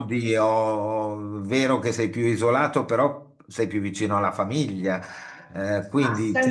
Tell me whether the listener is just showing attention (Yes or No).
No